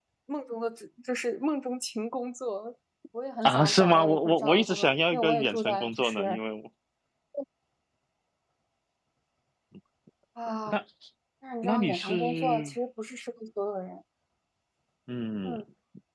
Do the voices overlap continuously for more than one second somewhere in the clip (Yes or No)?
Yes